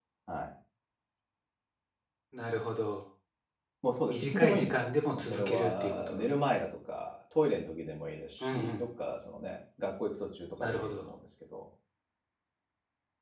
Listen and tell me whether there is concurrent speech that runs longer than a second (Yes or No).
Yes